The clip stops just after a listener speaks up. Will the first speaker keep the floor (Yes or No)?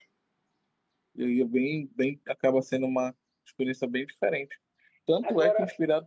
Yes